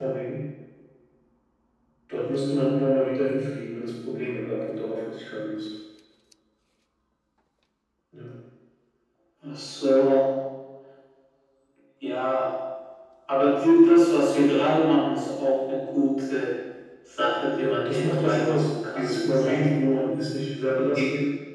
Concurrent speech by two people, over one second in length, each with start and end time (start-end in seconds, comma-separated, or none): 17.6-19.8